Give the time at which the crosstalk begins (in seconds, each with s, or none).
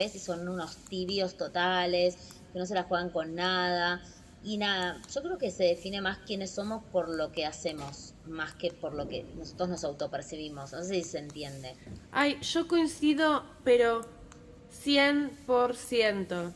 none